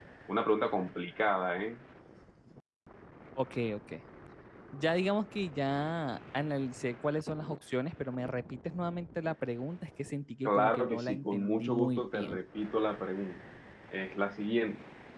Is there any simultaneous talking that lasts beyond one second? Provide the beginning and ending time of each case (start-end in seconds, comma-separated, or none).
10.4-12.4